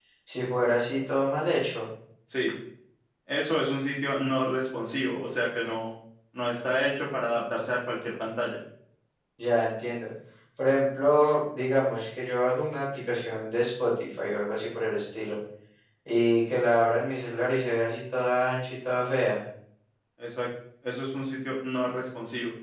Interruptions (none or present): none